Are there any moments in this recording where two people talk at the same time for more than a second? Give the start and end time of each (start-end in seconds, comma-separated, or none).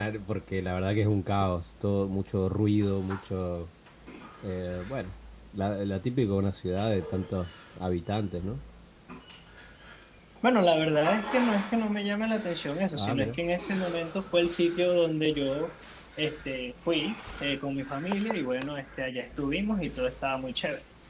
none